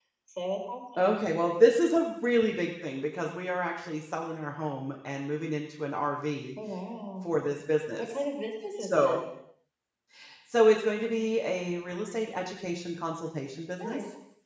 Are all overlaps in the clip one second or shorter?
Yes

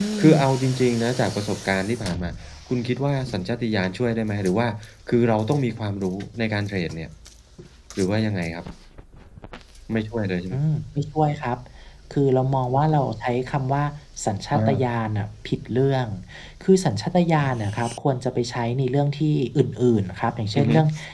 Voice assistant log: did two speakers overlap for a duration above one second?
No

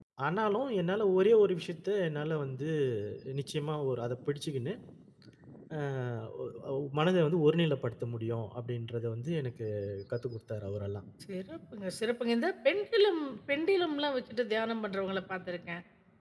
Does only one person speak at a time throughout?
Yes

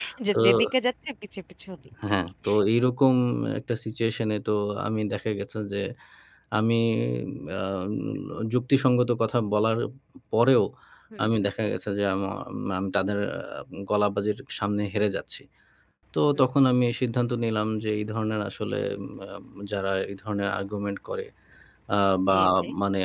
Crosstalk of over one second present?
No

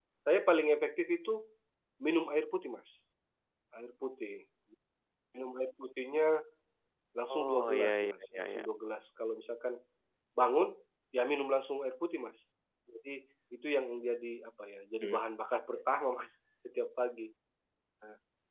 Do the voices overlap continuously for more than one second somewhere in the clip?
Yes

